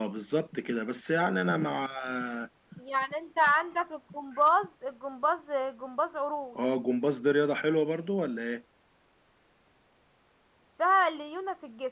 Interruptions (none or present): none